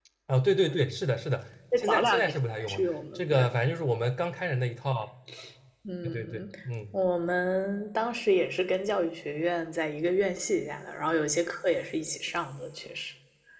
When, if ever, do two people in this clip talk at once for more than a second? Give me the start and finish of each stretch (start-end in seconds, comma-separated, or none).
1.8-3.5